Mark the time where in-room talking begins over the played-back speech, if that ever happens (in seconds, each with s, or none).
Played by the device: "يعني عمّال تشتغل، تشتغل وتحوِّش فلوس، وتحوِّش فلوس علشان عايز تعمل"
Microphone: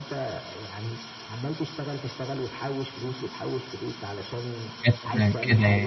4.8 s